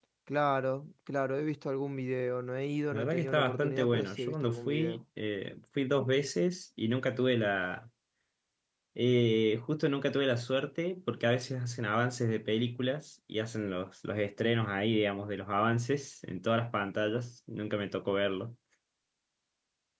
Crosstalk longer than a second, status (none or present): present